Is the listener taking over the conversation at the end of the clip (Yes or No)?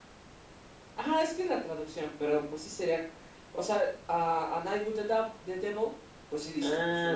Yes